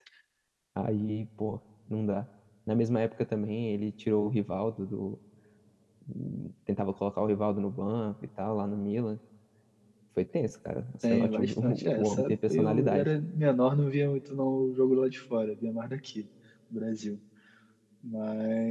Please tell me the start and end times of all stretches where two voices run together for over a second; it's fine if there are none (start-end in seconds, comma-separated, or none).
11.0-13.1